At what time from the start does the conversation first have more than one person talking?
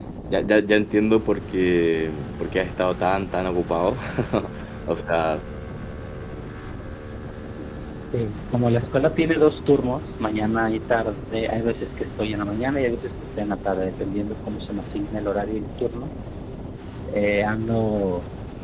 none

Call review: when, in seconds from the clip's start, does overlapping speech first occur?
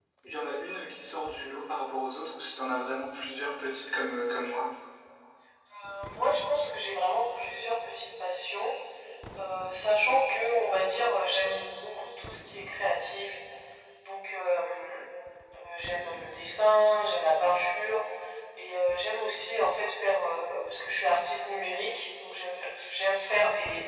none

